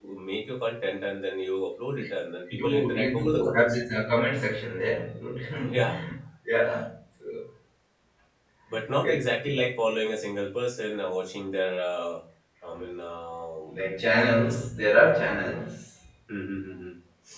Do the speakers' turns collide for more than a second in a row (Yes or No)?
Yes